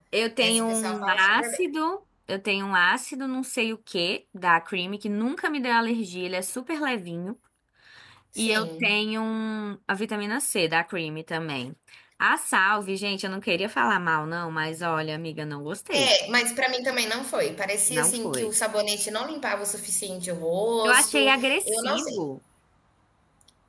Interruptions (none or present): present